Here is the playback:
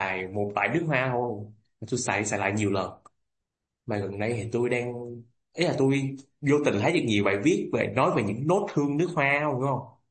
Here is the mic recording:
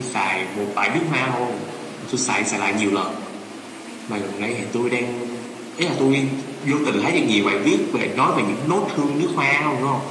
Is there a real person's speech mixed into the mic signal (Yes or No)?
No